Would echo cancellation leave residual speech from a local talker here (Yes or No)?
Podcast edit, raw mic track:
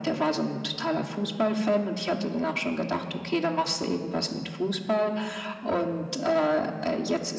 No